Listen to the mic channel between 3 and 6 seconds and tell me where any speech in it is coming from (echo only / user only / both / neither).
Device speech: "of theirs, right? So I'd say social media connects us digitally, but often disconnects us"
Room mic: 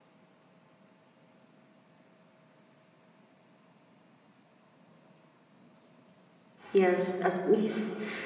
neither